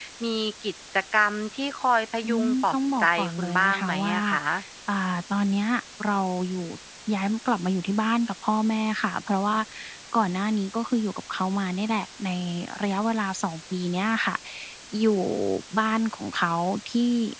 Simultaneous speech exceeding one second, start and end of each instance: 2.2-4.1

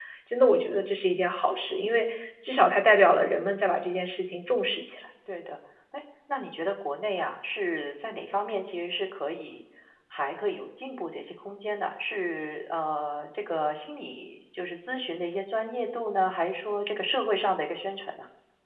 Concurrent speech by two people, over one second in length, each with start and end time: none

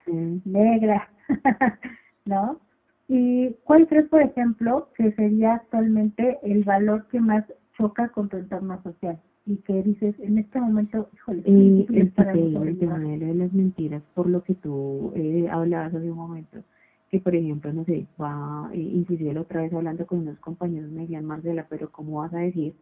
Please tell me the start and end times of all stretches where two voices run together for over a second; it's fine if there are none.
11.5-13.1

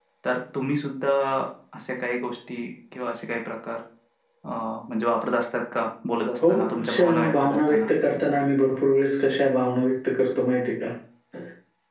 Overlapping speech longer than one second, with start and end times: 6.5-7.9

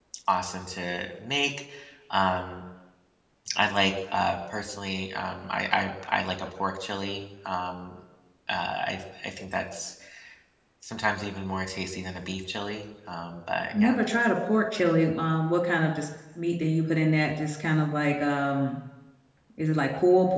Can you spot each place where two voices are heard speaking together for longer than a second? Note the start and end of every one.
none

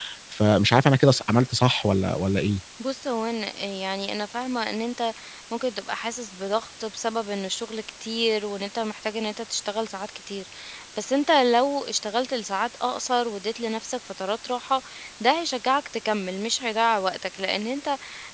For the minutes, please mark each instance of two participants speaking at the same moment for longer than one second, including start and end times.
none

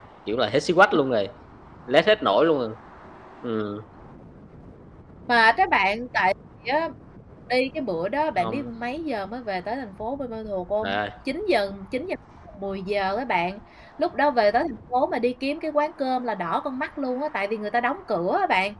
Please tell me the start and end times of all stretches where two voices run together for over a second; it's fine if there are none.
none

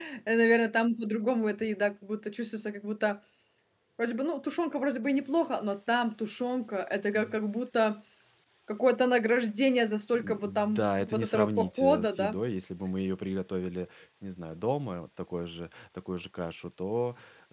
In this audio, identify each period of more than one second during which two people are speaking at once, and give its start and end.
10.2-12.4

